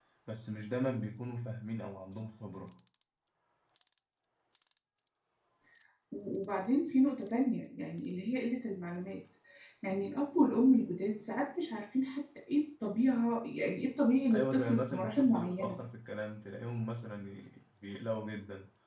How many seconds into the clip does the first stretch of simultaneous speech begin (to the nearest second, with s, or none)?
14 s